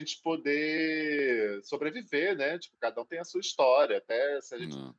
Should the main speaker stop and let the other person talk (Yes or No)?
No